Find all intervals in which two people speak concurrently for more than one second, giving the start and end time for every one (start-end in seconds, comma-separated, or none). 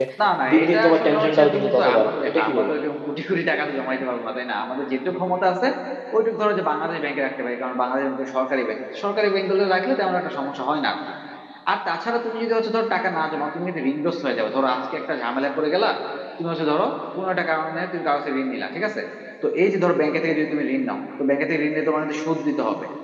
0.5-2.7